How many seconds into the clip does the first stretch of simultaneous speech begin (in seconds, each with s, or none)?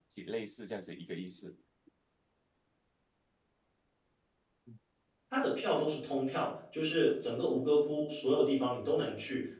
none